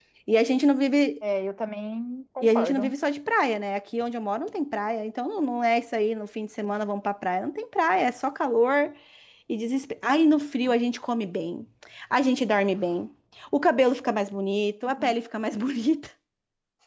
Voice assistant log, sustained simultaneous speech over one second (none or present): none